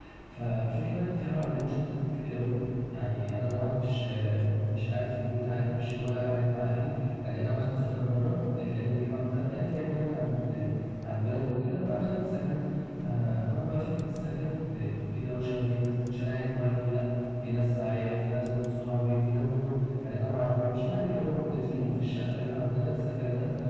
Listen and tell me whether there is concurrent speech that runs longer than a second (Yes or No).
No